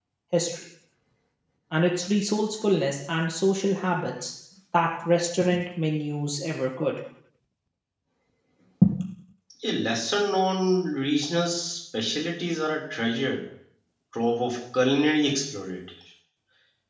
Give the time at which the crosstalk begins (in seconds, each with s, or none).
none